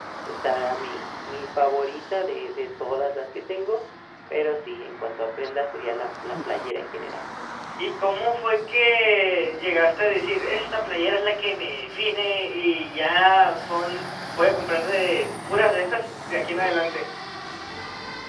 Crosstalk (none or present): none